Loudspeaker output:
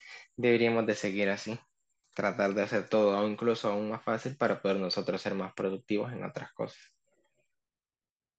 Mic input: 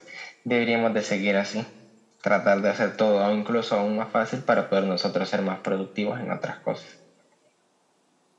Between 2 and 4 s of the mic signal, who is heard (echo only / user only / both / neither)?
echo only